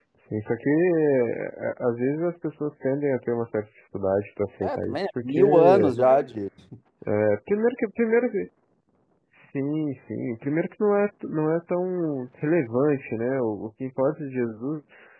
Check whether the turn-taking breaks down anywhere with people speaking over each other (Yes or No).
Yes